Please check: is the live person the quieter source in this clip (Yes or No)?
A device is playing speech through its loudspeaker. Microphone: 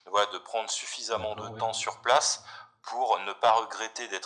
Yes